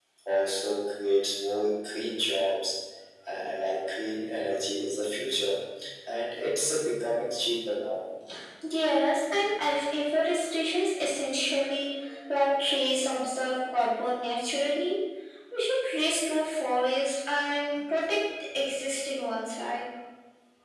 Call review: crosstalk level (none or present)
none